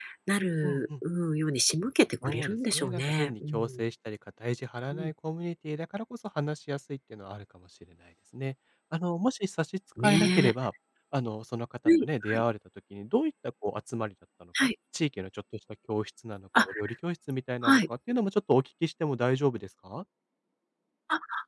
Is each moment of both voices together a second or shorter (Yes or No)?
No